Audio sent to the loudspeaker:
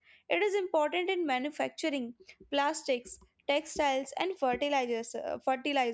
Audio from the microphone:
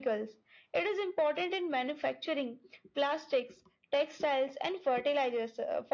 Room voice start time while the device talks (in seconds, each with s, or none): none